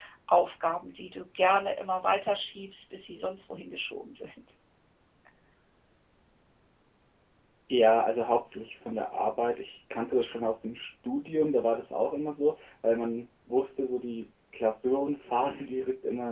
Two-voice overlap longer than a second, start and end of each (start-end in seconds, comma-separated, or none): none